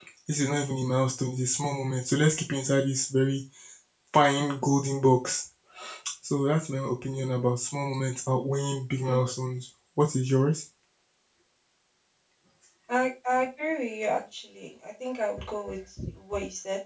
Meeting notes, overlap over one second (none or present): none